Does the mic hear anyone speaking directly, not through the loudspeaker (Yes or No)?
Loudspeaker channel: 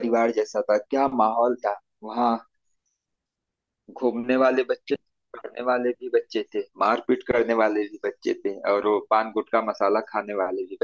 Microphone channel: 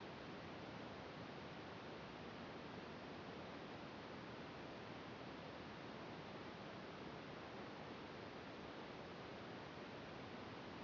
No